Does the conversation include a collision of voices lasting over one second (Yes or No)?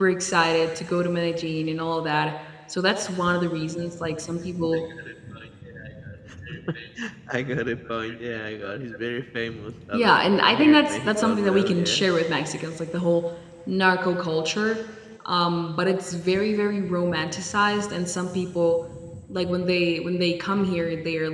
Yes